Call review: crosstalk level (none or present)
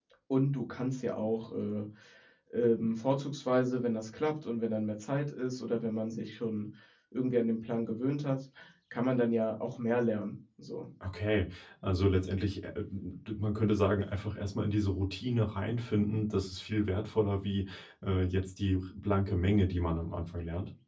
none